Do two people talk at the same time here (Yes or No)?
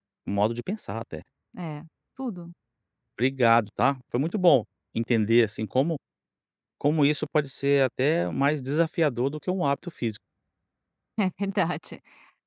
No